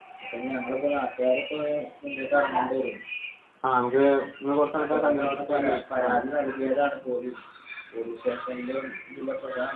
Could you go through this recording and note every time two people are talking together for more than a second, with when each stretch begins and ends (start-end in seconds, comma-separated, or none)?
4.9-6.1